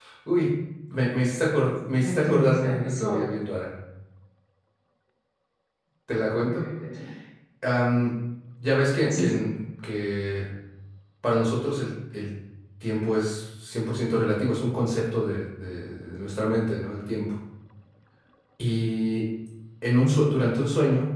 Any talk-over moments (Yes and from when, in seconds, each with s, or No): Yes, from 2.0 s